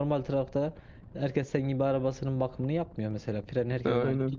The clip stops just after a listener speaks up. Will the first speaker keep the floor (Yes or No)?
Yes